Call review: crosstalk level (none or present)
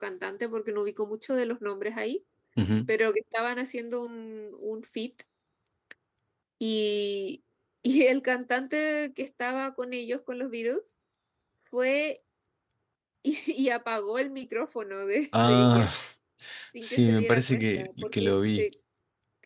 present